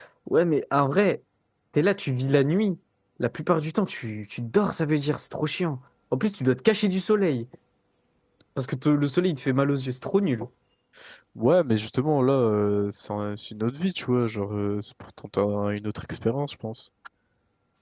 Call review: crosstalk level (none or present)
none